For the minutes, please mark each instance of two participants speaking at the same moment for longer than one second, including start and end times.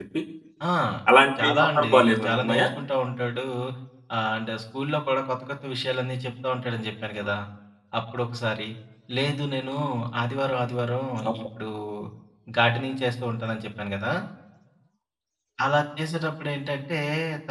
1.4-2.7

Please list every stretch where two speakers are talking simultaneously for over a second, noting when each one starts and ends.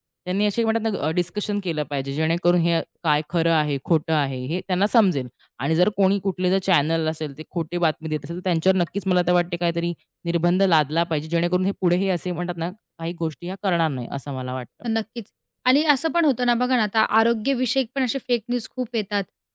none

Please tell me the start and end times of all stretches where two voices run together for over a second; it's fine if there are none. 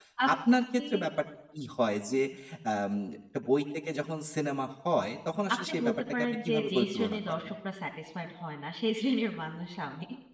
5.5-7.5

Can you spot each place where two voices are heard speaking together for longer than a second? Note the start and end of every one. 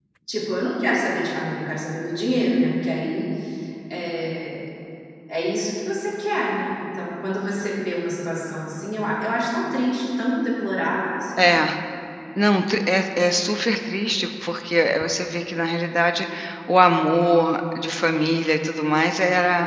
none

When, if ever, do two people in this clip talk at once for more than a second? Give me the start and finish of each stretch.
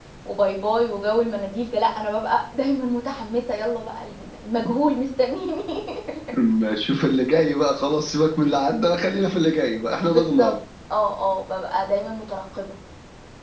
none

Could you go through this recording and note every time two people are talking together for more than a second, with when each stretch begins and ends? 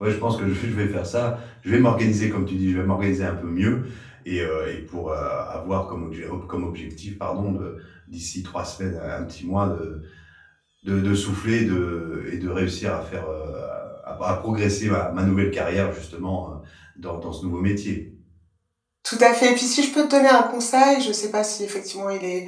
none

